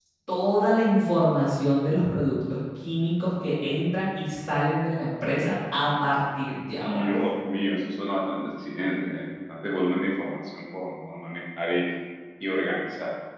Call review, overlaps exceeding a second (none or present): none